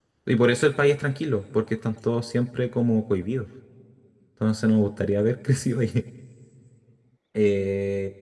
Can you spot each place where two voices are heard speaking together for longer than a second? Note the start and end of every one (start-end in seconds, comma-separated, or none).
none